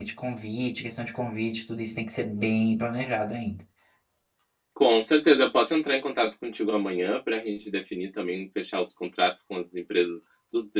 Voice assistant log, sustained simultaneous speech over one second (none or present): none